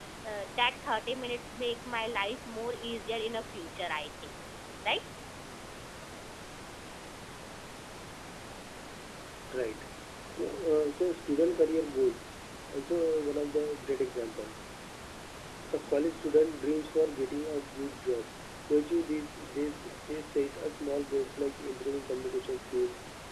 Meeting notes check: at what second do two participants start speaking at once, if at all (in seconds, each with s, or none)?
none